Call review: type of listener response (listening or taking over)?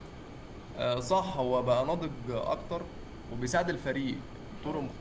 listening